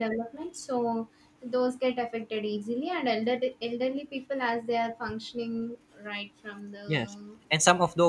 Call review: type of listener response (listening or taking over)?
taking over